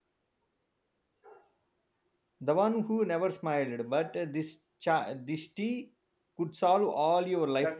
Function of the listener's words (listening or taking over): taking over